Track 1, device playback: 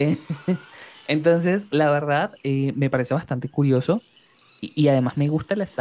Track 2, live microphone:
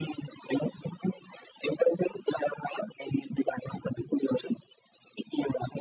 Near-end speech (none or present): none